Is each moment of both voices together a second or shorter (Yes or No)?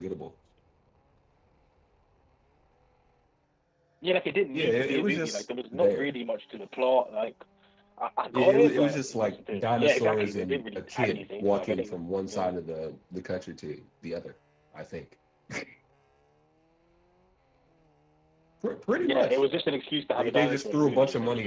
No